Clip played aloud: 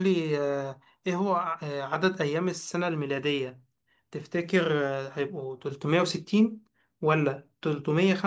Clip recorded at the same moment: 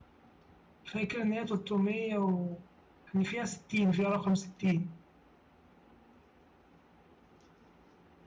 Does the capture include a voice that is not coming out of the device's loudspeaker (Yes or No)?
Yes